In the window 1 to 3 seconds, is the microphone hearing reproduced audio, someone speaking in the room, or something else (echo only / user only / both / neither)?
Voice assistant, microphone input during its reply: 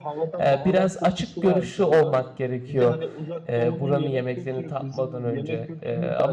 both